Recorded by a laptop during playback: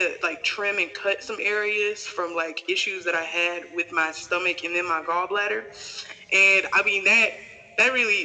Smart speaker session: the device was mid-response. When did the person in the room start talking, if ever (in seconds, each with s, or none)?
none